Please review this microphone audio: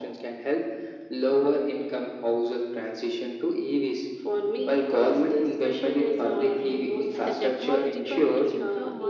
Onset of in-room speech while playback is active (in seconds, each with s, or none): 7.2 s